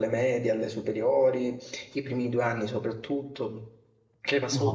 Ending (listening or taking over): listening